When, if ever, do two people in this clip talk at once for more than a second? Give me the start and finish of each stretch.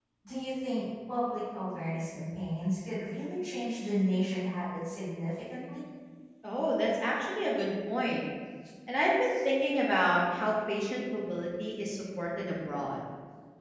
none

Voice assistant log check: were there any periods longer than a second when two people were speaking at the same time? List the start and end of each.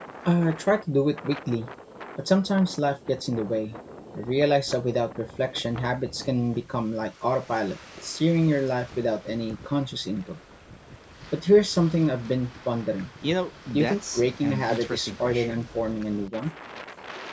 13.7-15.7

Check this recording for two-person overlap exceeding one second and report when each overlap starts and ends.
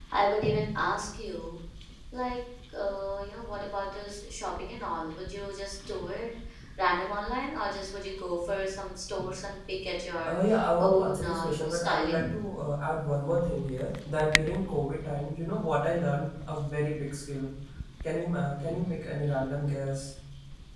10.8-12.3

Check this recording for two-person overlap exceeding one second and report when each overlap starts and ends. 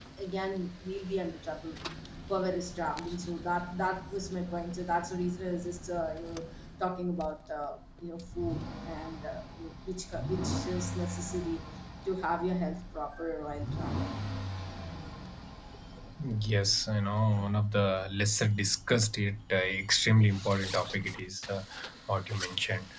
none

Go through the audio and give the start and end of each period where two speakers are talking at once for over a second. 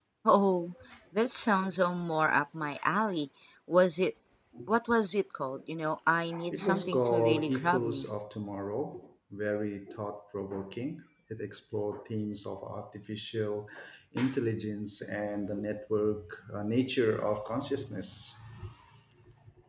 6.5-8.1

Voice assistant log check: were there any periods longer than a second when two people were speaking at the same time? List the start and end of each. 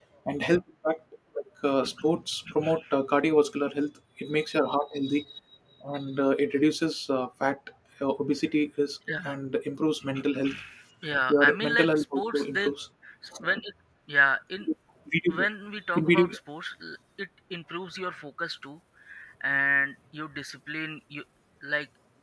11.3-12.7

